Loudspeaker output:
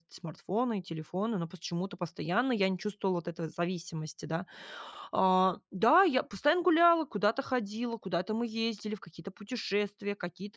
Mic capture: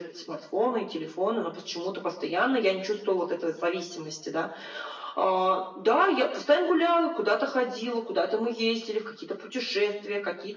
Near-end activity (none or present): none